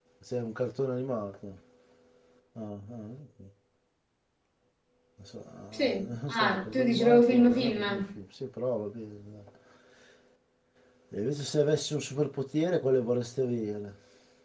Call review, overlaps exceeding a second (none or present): present